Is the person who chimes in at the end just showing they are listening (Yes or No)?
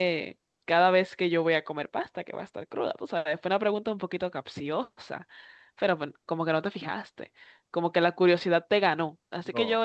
Yes